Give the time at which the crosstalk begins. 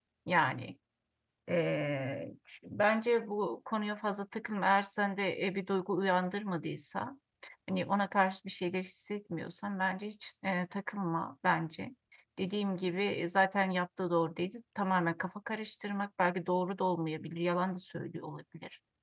none

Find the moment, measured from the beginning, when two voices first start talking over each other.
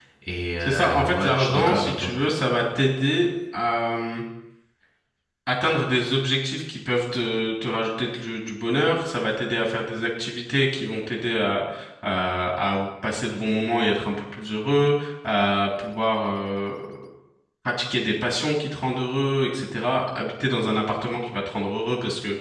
1 s

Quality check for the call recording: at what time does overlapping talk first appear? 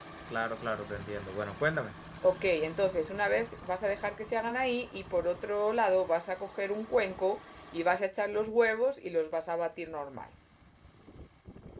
none

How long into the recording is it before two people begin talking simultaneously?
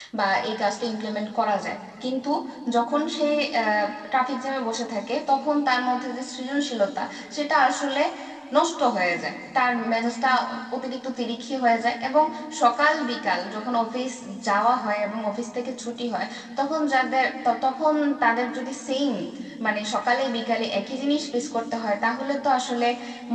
none

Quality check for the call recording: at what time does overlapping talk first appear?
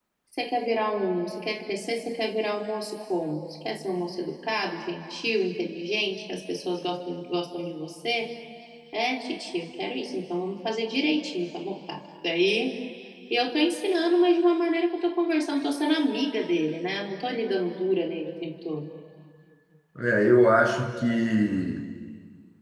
none

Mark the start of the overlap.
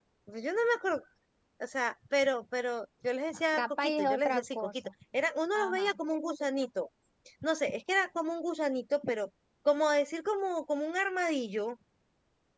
4 s

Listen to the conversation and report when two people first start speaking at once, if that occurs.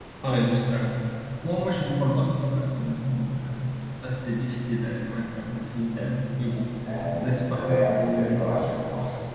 7 s

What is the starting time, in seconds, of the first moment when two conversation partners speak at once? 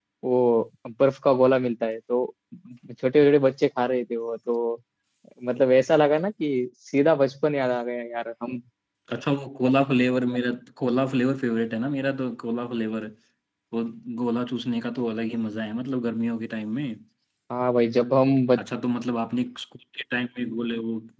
none

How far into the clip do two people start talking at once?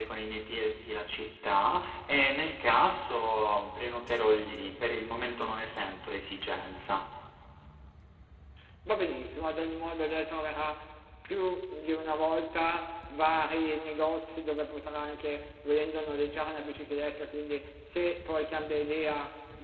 none

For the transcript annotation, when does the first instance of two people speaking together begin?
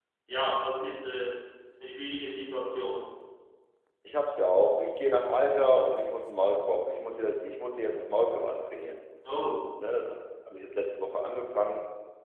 none

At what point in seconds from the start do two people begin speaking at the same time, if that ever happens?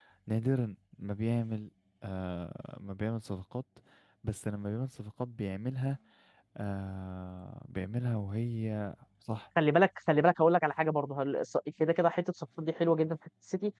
none

